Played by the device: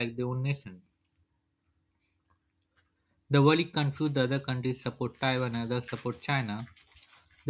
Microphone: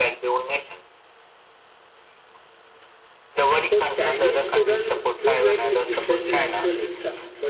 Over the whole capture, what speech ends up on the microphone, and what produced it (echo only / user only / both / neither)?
both